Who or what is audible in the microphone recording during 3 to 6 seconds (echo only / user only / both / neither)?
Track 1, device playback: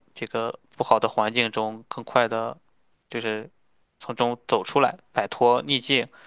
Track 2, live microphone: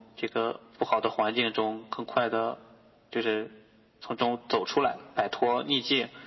echo only